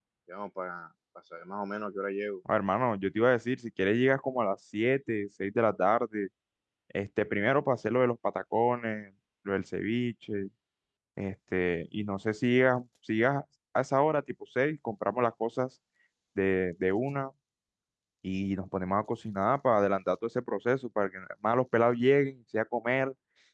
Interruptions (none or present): none